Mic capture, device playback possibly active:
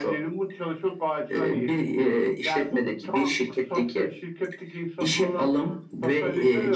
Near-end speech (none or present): none